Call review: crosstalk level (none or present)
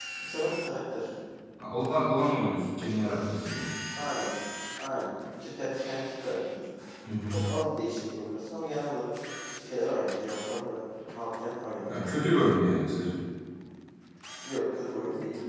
none